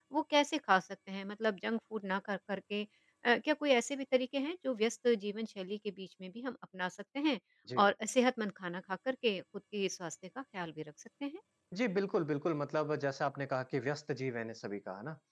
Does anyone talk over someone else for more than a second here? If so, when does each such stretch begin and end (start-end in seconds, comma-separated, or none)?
none